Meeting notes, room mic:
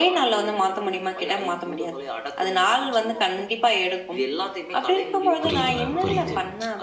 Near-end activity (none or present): present